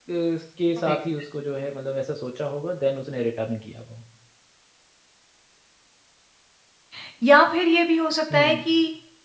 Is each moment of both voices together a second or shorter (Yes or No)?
Yes